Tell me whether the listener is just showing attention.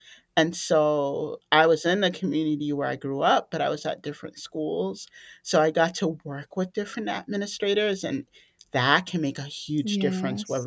Yes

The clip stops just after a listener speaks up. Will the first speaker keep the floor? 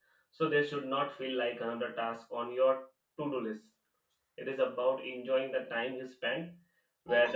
Yes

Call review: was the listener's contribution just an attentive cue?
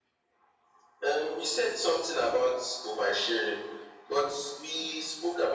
Yes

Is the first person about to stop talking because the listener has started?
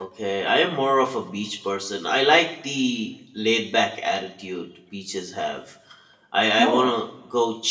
No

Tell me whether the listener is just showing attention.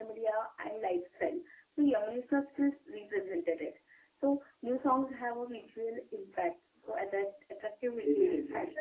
Yes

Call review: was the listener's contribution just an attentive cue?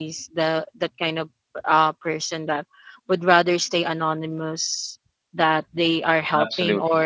Yes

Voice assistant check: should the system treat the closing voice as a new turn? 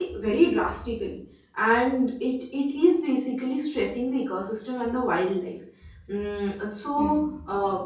Yes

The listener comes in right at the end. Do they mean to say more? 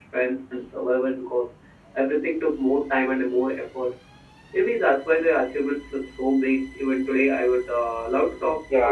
Yes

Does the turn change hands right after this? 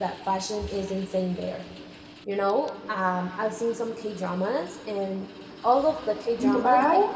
No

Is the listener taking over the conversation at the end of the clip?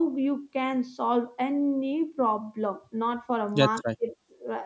No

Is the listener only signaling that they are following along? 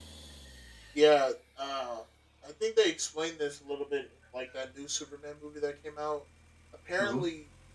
Yes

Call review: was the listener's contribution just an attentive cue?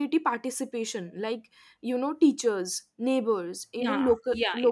Yes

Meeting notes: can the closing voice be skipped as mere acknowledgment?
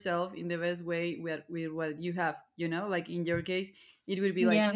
Yes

